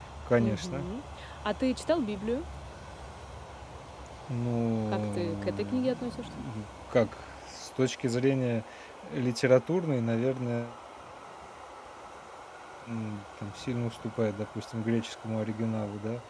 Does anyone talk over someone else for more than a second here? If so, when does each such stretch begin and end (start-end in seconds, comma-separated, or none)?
4.9-6.3